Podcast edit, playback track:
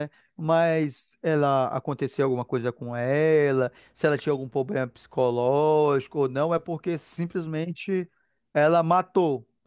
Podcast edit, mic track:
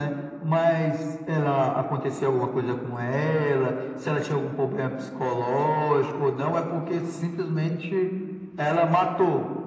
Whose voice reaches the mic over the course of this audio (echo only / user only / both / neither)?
echo only